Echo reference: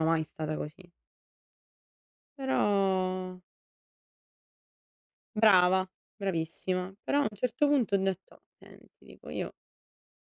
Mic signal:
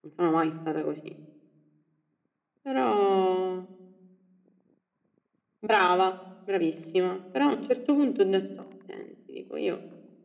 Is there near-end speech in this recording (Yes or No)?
No